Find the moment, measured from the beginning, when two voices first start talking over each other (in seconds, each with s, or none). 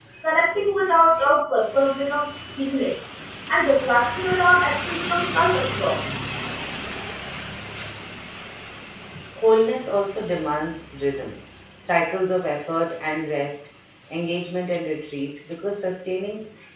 none